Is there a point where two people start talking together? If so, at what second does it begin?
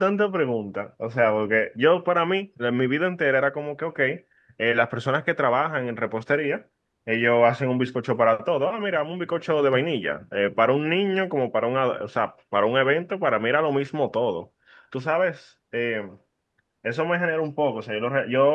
none

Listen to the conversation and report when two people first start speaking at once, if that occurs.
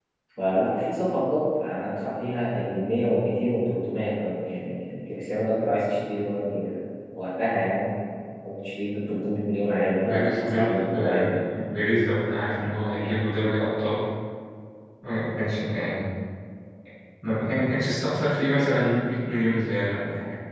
10.0 s

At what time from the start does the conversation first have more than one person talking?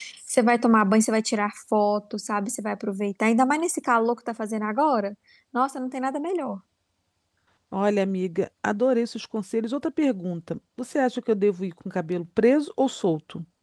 none

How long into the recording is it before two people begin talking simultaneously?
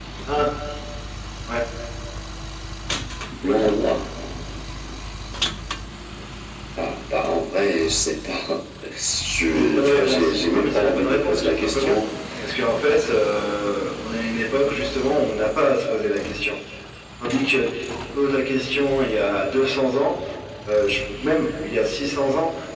9.5 s

